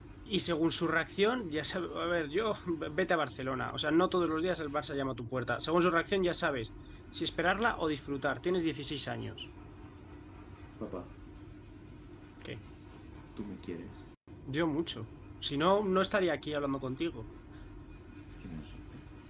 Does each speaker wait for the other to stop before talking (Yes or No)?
Yes